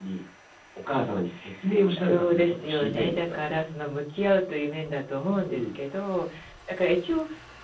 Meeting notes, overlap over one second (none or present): present